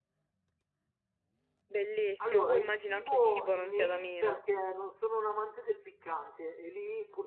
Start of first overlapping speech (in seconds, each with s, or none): 2.2 s